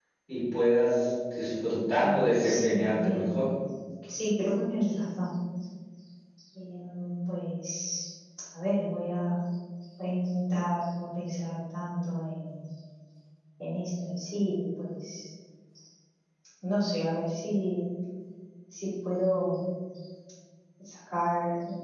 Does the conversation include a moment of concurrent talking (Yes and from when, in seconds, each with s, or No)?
Yes, from 2.0 s